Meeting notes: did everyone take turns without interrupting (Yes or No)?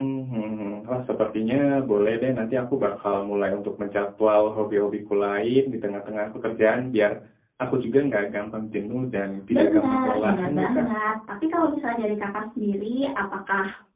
No